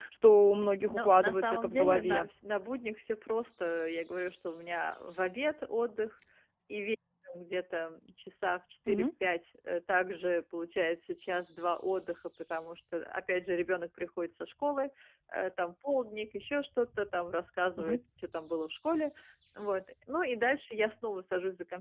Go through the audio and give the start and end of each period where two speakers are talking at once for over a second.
0.9-2.3

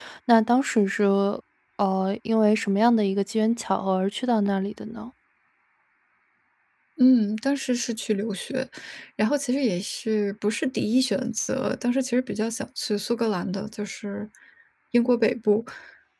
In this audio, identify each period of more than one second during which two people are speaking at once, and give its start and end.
none

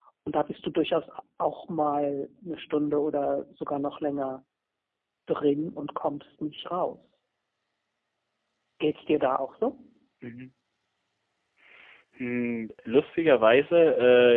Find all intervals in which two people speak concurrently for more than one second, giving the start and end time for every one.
none

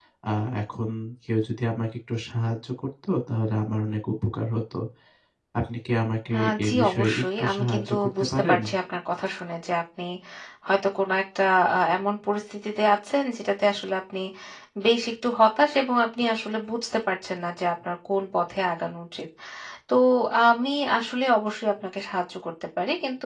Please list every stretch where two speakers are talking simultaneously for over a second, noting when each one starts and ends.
6.3-8.6

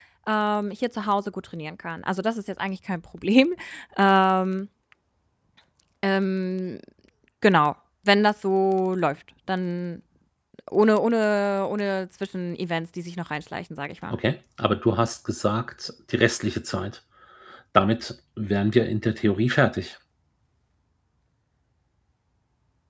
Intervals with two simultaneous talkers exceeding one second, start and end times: none

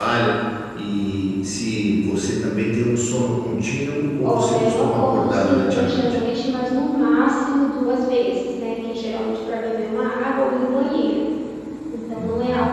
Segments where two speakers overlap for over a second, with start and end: 4.2-6.0

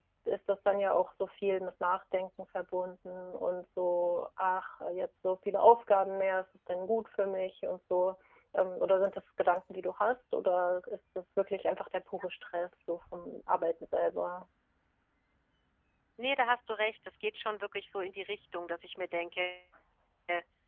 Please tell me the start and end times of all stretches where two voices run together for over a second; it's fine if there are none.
none

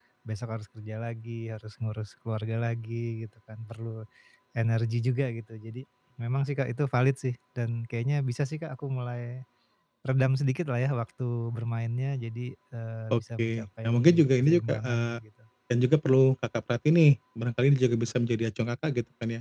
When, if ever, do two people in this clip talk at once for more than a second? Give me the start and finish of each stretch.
13.1-15.2

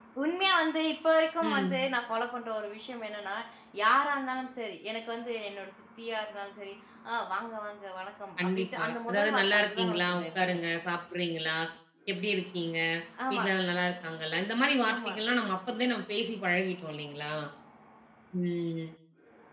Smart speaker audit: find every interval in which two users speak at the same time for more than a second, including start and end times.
8.4-10.6

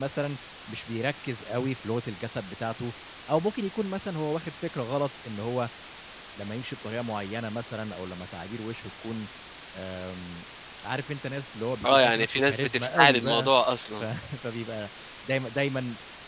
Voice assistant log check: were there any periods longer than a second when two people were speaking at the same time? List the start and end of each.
11.8-13.5

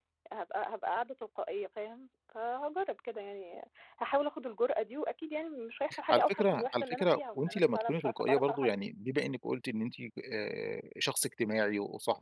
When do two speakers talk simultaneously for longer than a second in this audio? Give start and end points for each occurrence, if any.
6.1-8.7

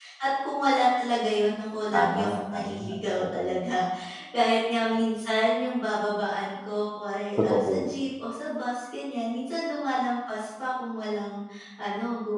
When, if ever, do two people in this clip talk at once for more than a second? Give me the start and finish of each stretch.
1.9-3.6

